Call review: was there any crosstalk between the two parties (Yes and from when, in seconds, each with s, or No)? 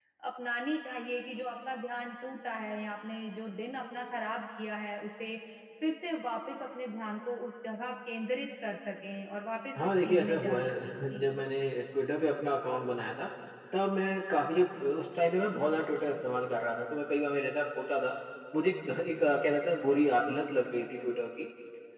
Yes, from 9.8 s